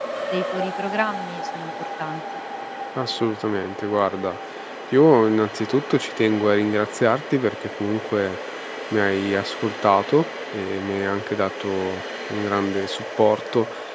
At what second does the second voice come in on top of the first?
none

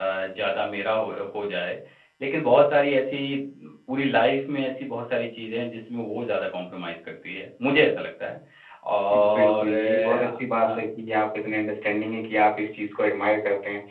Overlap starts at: 9 s

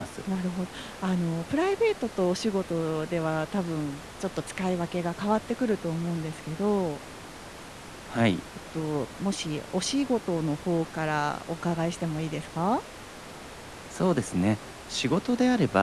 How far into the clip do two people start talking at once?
none

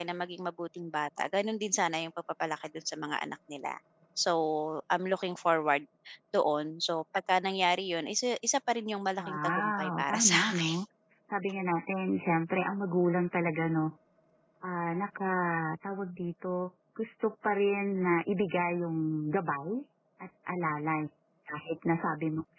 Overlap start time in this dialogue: 9 s

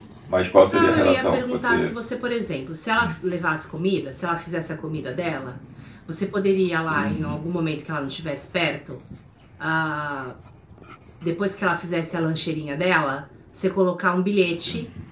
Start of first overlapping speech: 1 s

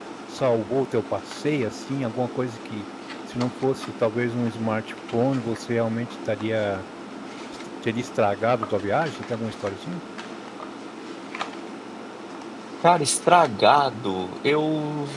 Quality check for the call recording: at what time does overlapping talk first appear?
none

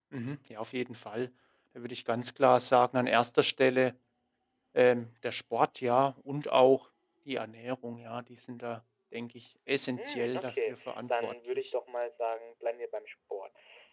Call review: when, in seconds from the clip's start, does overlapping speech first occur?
10 s

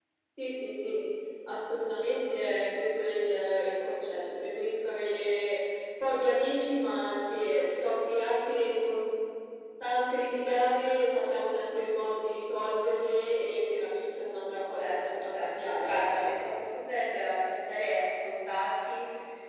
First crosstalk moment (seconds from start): 15 s

